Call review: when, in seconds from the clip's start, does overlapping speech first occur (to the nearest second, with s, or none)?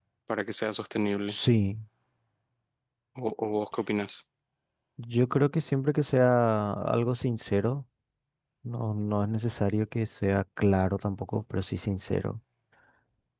none